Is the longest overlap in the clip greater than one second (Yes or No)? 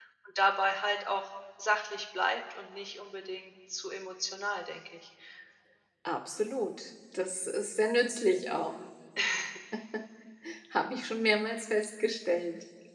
No